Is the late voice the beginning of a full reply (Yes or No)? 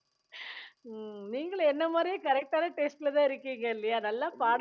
Yes